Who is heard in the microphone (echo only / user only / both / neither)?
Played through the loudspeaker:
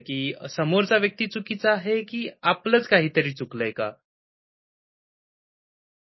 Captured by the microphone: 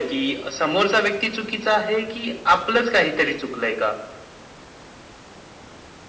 echo only